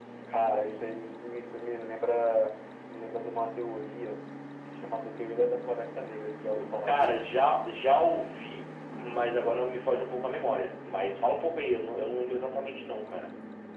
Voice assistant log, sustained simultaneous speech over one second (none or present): none